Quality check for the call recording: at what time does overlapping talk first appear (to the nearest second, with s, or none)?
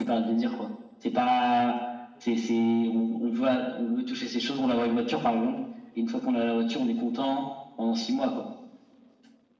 none